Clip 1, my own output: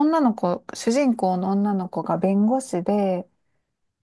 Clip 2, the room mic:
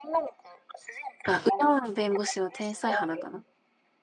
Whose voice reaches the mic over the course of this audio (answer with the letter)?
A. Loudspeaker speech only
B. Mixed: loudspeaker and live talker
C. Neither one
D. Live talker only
B